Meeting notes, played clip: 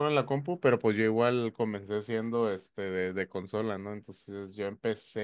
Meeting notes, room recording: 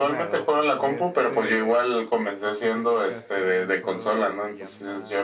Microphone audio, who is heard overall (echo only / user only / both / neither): both